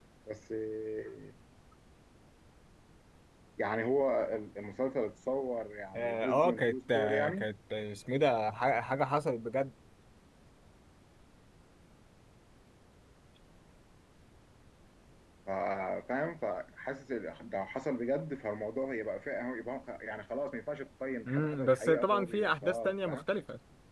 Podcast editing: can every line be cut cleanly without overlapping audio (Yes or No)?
No